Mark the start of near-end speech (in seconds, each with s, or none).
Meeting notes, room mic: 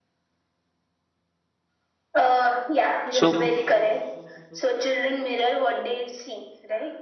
3.1 s